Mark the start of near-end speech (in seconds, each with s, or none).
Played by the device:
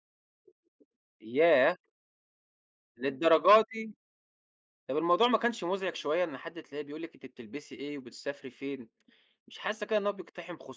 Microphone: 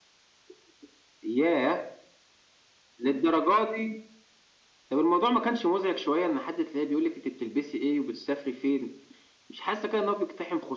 none